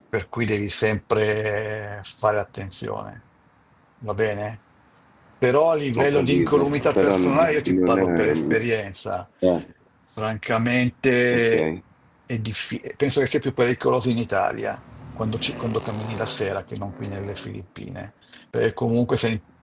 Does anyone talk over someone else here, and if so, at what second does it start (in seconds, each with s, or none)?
6.0 s